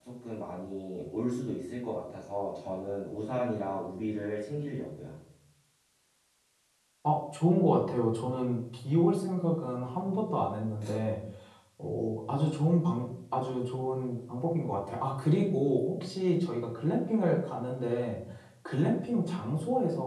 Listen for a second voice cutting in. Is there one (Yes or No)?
No